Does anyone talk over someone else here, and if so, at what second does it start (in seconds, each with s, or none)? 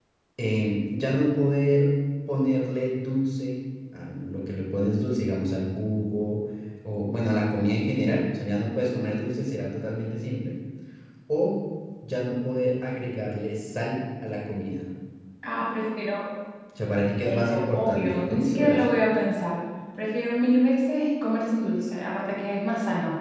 17.2 s